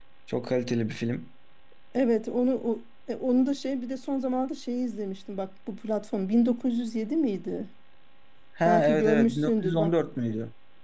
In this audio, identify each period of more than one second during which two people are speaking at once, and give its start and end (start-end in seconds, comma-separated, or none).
8.7-9.9